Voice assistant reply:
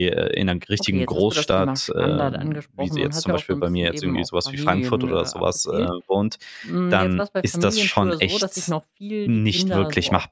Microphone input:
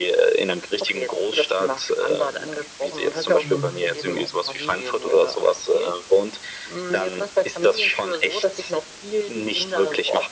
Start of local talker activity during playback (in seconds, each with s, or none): 3.4 s